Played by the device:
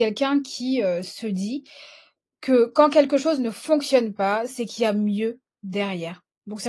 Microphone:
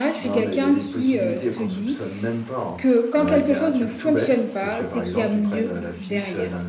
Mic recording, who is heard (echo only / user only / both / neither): both